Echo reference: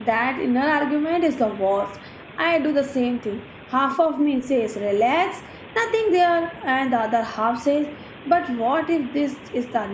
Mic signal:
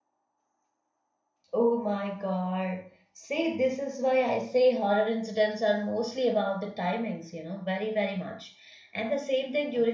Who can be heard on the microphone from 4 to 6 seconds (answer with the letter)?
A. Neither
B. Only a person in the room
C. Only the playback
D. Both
B